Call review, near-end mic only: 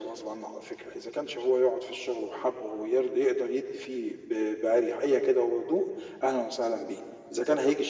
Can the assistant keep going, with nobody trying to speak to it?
Yes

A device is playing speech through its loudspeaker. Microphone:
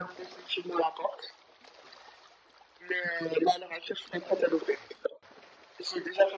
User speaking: No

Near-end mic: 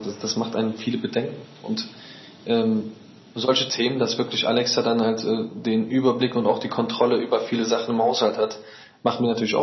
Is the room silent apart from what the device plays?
Yes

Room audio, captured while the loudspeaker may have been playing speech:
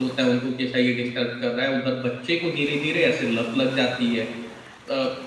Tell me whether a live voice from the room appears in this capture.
Yes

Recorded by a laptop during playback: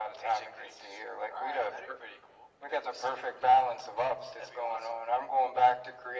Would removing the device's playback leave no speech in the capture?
Yes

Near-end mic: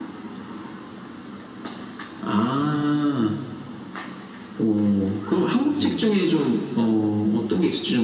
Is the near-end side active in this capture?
Yes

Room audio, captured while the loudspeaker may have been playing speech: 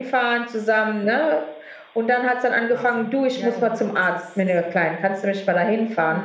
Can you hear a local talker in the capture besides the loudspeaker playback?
No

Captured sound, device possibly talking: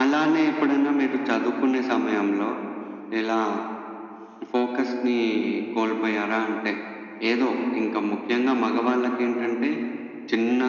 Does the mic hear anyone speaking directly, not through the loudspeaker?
No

